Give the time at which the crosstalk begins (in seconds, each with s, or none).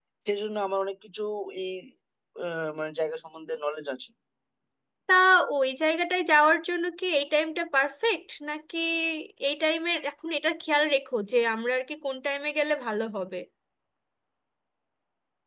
none